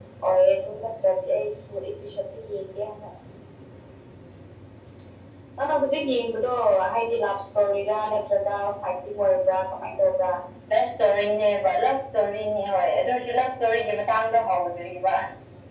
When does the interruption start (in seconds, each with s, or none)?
none